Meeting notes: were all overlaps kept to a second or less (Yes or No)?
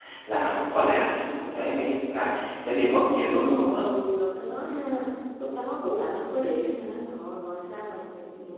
Yes